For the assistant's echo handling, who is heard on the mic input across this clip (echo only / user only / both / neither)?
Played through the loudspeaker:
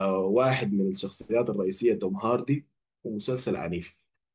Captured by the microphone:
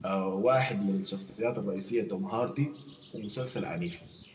echo only